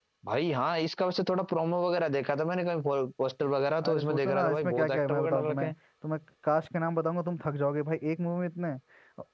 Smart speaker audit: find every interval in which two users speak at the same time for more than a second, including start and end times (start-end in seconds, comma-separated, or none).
3.8-5.7